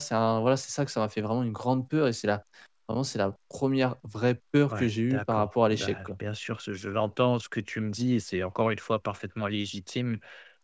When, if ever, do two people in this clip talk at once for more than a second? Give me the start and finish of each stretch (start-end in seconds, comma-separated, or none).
4.7-6.1